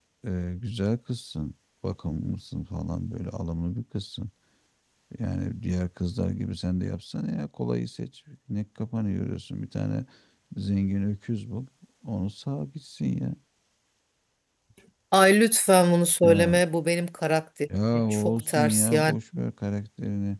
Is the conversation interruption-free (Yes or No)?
No